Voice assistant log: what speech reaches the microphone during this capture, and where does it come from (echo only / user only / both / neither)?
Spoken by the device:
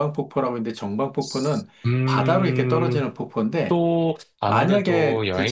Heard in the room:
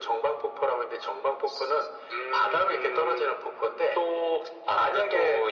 echo only